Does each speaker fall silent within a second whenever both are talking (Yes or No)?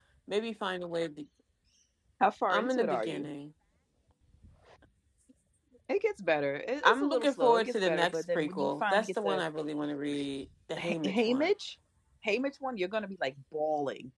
No